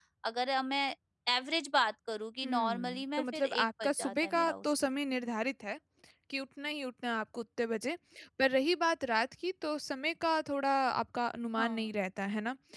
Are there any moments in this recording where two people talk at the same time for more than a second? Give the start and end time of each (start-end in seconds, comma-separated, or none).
2.4-4.9